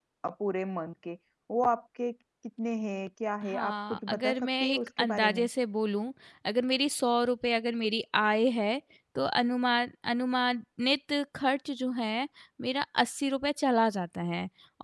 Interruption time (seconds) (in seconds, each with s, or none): 3.4 s